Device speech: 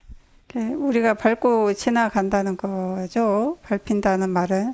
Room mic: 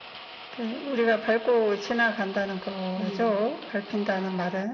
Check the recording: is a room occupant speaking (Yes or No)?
Yes